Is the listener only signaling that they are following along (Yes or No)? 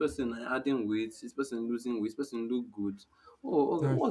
Yes